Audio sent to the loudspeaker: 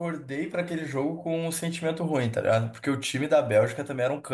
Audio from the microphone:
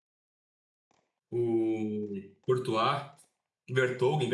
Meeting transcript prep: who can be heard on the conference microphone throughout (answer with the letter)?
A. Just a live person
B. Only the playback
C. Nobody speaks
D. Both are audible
A